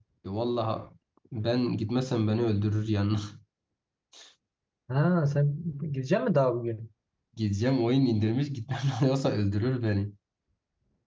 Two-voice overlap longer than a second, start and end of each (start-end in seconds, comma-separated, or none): none